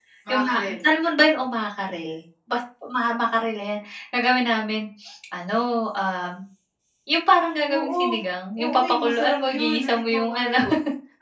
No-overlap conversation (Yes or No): No